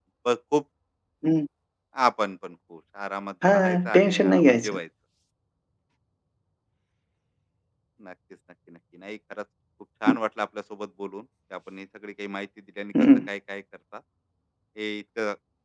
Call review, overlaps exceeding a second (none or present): present